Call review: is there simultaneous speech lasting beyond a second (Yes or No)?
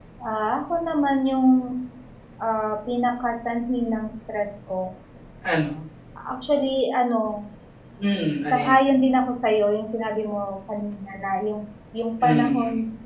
No